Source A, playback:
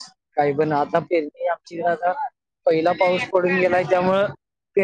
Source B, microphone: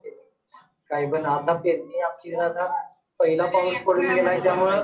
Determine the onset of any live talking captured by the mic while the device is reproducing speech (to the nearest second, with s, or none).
4 s